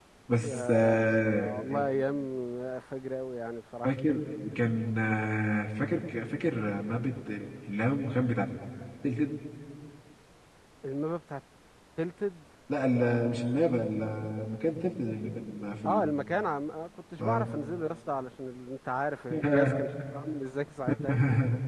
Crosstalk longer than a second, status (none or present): present